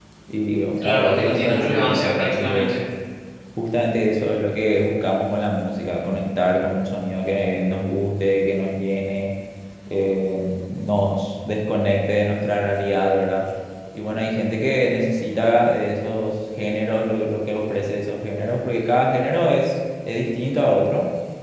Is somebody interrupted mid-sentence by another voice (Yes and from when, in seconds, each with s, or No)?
Yes, from 0.8 s